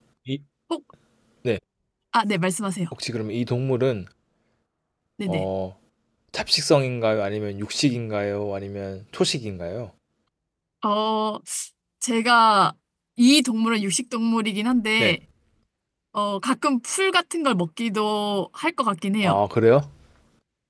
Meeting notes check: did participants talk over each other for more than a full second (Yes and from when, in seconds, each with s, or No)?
No